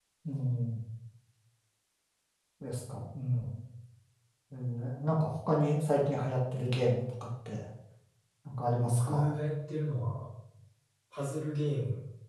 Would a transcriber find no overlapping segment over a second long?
Yes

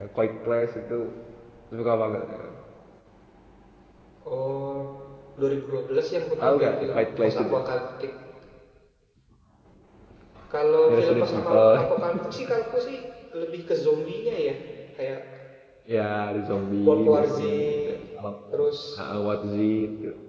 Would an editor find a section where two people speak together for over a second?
Yes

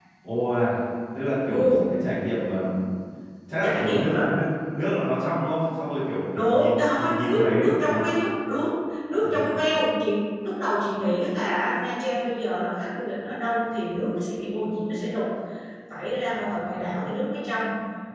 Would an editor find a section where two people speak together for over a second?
Yes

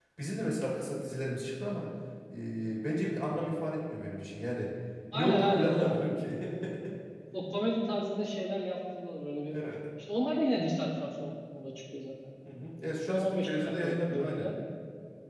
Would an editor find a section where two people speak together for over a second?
Yes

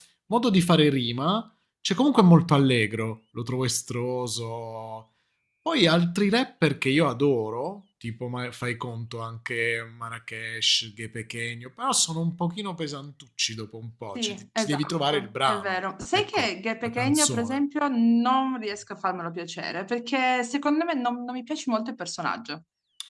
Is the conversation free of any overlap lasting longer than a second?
No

